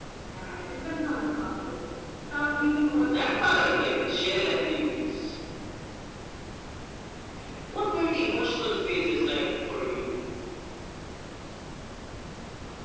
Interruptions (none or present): present